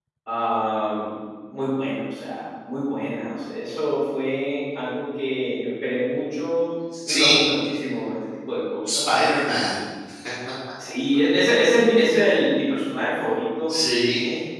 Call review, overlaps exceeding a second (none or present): none